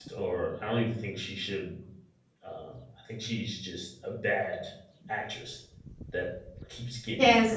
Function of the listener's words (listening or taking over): taking over